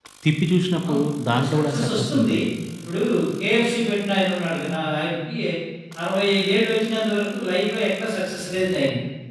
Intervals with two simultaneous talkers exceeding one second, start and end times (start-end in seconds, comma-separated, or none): 0.9-2.4